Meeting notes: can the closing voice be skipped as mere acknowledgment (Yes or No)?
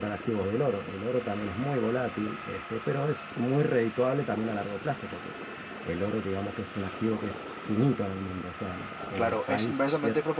No